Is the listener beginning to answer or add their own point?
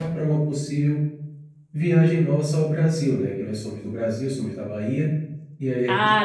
No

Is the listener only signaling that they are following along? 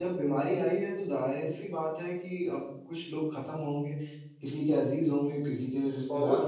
No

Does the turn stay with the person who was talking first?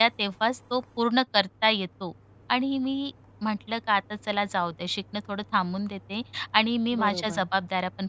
Yes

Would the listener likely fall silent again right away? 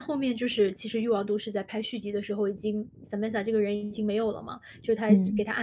Yes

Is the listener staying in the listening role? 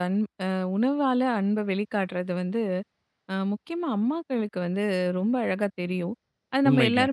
Yes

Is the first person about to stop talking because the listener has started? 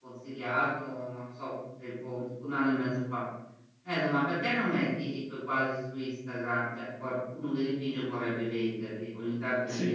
No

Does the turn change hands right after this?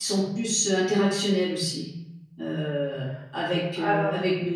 No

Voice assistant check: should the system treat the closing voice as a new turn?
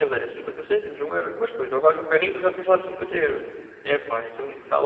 No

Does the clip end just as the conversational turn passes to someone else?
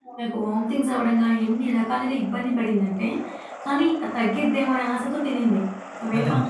Yes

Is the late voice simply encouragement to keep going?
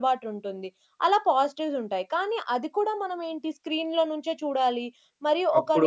Yes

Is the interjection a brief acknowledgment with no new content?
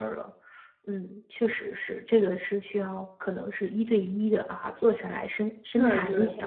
No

